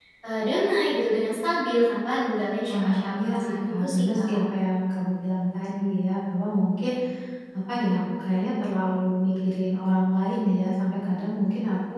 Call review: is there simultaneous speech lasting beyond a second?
Yes, from 2.7 s

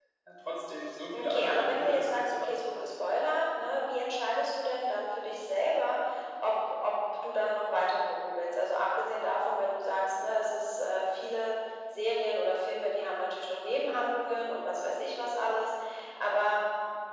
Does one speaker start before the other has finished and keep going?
Yes, from 1.1 s

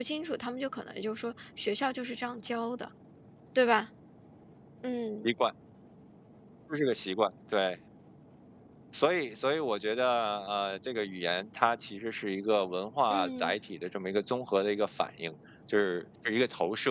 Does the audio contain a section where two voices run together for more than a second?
No

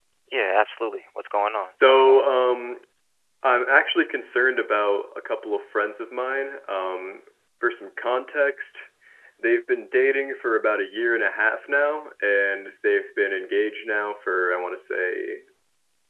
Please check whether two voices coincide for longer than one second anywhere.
No

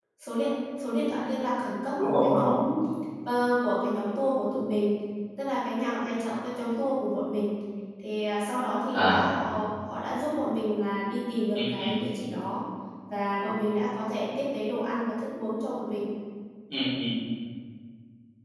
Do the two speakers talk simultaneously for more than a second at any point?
No

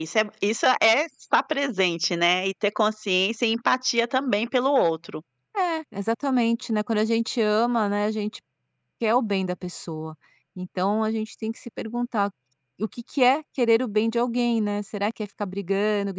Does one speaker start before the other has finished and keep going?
No

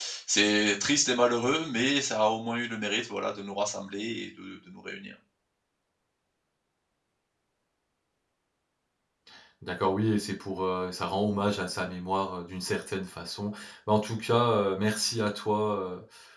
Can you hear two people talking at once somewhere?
No

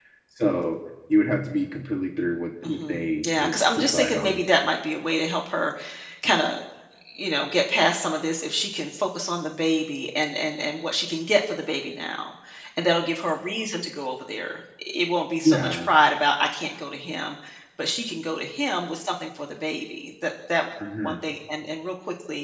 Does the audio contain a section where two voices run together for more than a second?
Yes, from 2.6 s

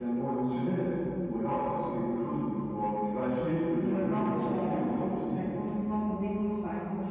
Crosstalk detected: Yes, from 3.8 s

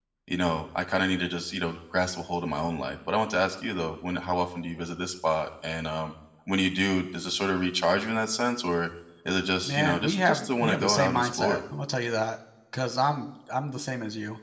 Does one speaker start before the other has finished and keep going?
Yes, from 9.7 s

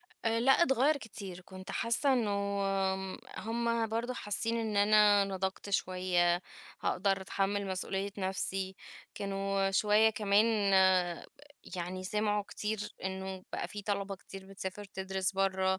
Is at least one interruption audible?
No

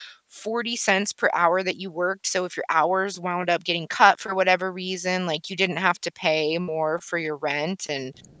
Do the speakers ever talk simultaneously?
No

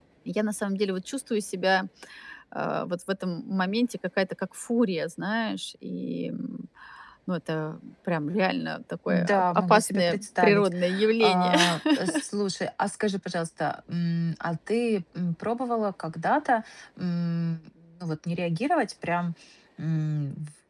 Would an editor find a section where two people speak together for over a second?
Yes, from 9.1 s

